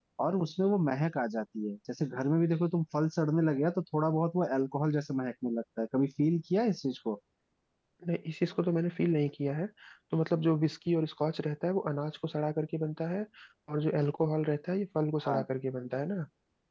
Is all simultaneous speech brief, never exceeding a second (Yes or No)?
Yes